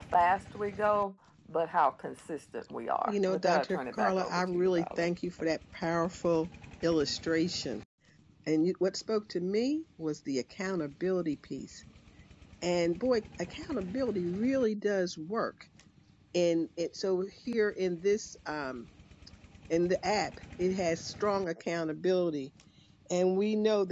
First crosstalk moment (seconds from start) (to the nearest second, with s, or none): 3 s